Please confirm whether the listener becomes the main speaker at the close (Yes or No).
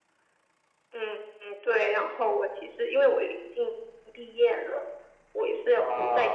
No